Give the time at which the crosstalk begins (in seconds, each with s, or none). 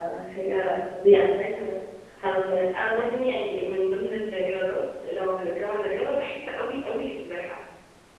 none